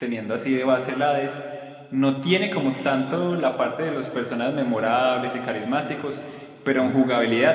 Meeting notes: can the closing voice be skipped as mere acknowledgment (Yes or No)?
Yes